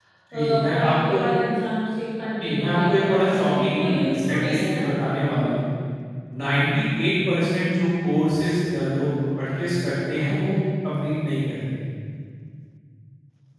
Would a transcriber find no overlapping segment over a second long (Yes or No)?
No